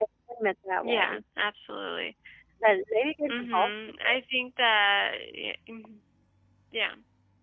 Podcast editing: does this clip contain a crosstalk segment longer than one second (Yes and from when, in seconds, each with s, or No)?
No